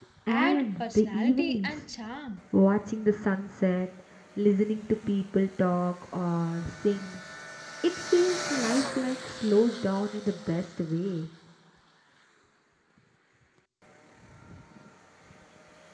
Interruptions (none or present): present